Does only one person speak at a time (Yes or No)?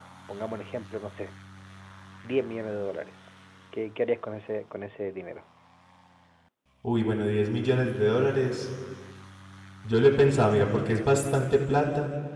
Yes